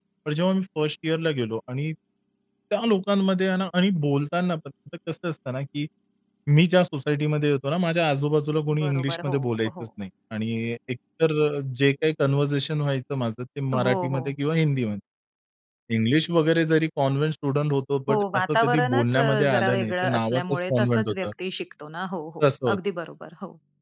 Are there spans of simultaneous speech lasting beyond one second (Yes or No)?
Yes